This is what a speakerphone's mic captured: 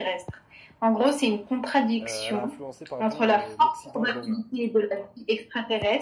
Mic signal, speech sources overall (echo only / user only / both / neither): both